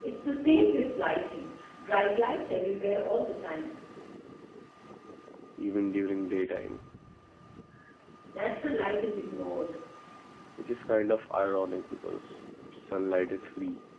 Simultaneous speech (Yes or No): No